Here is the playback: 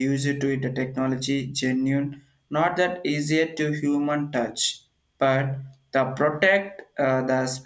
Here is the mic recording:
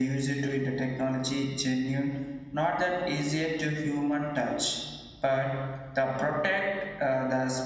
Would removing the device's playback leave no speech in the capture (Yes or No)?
Yes